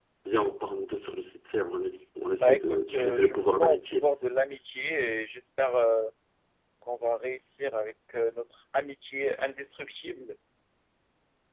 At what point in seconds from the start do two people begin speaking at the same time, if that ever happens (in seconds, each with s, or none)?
2.4 s